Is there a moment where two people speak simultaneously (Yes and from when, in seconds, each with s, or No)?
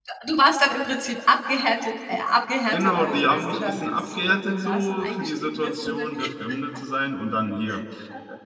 Yes, from 2.7 s